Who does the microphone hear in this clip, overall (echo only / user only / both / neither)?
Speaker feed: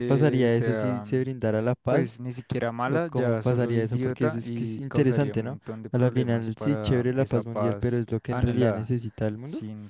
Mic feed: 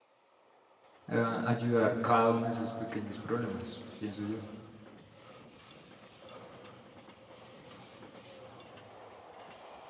user only